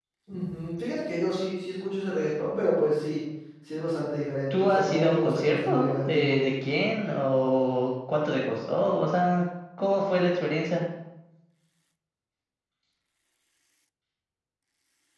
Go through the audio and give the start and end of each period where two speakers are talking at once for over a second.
4.5-6.4

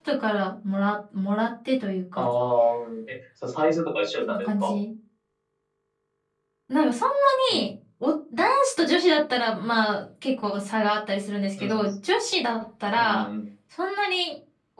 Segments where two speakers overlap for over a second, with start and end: none

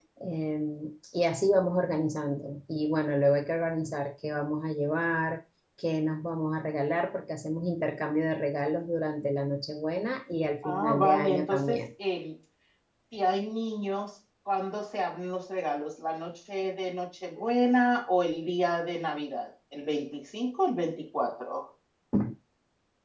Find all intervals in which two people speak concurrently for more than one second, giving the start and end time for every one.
10.6-11.8

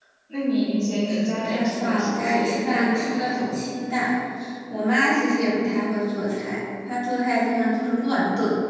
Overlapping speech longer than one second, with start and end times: 1.3-3.5

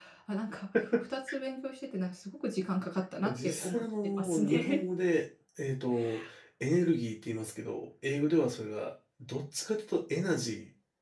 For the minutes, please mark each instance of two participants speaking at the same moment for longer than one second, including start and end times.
3.2-4.8

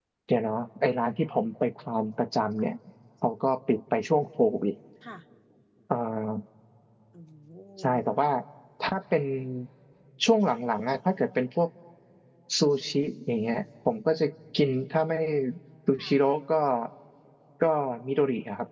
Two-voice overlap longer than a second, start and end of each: none

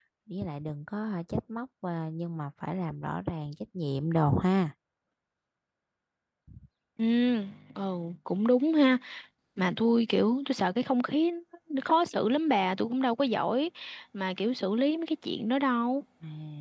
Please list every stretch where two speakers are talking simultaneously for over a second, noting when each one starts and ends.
none

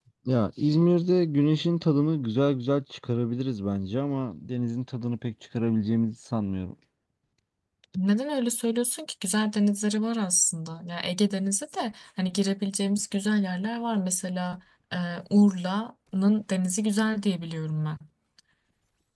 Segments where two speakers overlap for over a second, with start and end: none

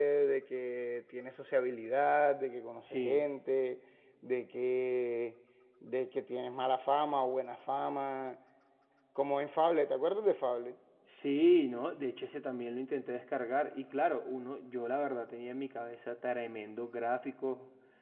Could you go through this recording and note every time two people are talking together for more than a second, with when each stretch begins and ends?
none

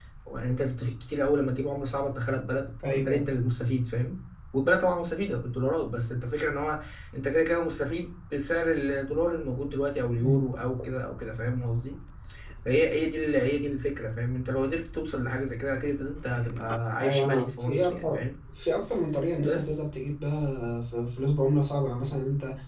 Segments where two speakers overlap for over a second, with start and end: 17.0-18.2

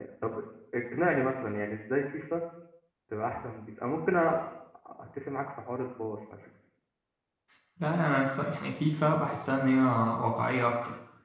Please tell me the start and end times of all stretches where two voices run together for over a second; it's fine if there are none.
none

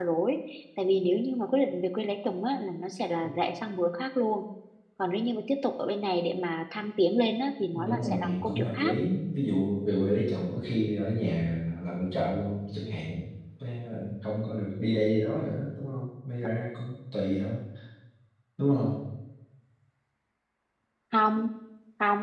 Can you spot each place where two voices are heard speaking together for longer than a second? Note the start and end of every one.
7.7-8.9

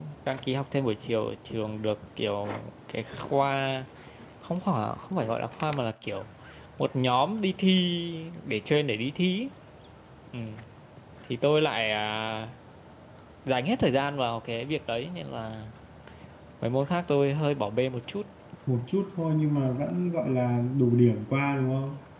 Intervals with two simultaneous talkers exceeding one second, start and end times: none

